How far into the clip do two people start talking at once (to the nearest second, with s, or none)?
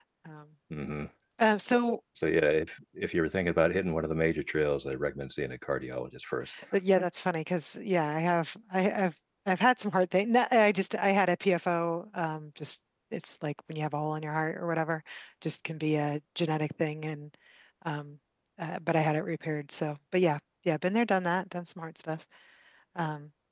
none